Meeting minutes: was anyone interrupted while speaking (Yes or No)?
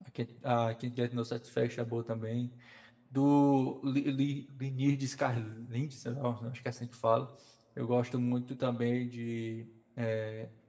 No